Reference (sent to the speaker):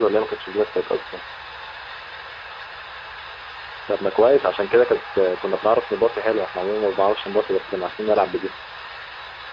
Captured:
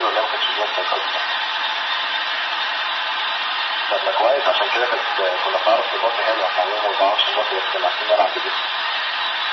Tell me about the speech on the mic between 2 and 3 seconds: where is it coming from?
neither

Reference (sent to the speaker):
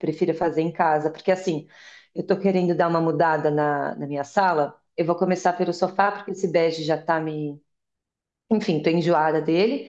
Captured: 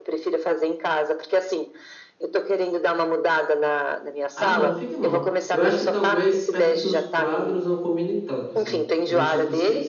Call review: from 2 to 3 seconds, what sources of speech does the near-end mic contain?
echo only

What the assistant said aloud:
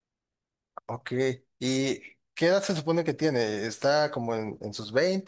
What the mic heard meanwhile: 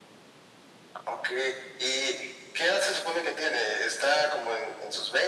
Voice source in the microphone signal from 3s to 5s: echo only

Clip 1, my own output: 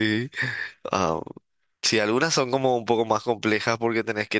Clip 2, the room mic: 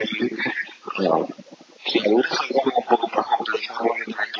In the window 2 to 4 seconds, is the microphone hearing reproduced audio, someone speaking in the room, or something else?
echo only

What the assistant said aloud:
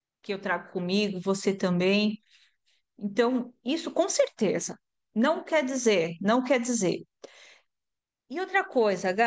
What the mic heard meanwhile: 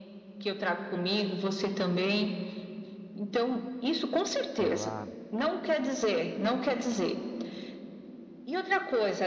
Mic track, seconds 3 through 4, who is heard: echo only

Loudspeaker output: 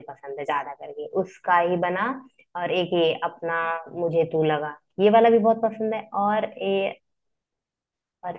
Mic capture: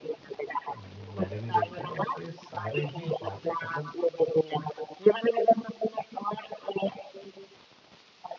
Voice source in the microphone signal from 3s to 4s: both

